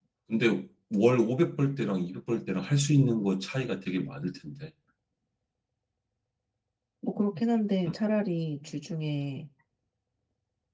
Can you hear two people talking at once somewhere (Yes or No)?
No